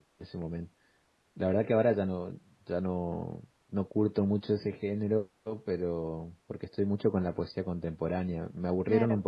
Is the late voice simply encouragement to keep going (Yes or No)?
Yes